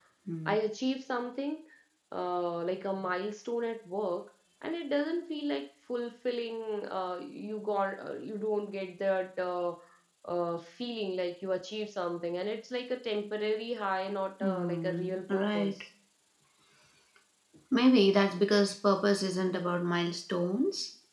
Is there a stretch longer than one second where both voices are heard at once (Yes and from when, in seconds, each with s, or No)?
Yes, from 14.4 s